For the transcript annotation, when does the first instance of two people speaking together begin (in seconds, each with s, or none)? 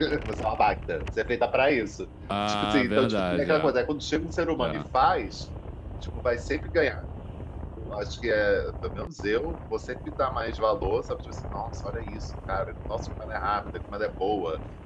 2.5 s